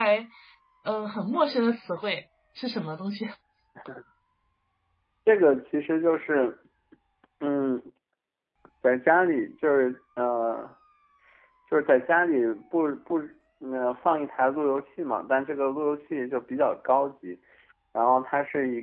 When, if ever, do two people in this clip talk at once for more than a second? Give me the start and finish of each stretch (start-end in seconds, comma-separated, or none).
none